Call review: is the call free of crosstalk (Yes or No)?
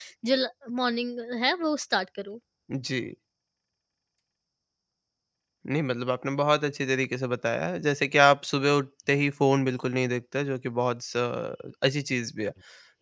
Yes